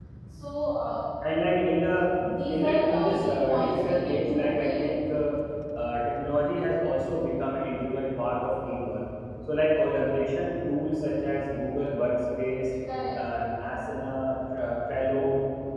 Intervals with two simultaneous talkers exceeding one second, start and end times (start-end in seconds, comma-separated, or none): 2.5-4.9